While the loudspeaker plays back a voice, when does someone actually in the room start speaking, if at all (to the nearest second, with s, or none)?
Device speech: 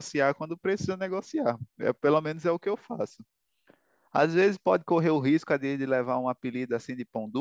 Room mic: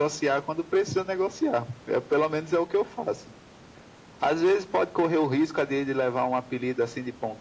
none